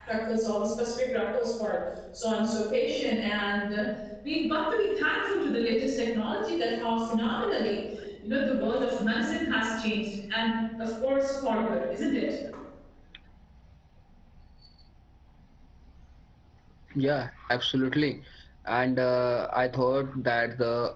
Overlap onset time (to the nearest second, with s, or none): none